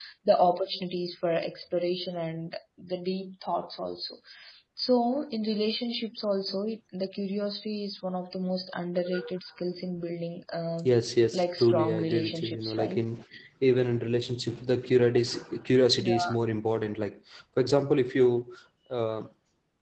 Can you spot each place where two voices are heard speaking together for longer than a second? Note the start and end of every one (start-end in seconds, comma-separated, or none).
11.3-13.0